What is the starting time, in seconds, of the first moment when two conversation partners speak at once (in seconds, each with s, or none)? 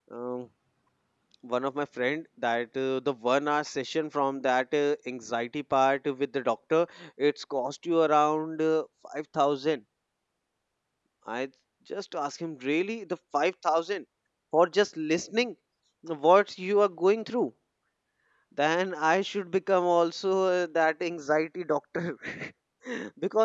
none